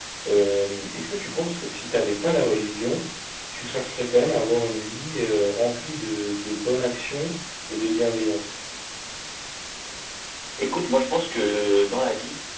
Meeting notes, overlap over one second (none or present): none